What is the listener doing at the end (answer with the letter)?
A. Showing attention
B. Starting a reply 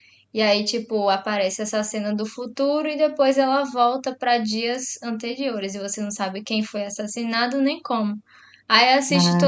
A